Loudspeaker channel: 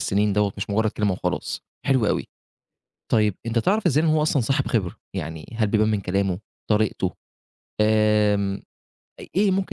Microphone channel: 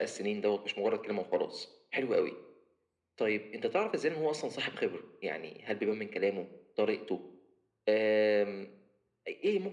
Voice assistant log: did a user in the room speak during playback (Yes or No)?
No